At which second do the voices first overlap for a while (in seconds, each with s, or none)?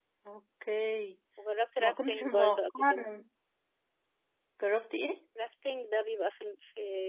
1.8 s